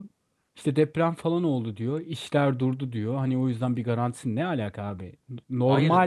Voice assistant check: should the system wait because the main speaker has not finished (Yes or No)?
Yes